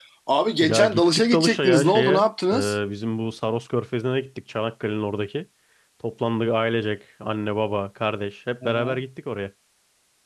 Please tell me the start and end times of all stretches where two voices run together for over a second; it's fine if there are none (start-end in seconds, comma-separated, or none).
0.6-2.8